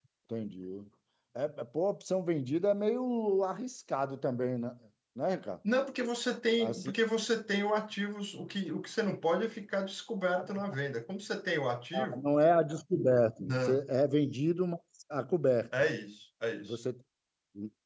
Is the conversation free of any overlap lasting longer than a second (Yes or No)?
Yes